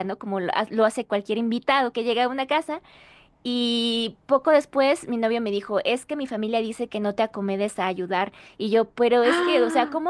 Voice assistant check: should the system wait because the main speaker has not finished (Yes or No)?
Yes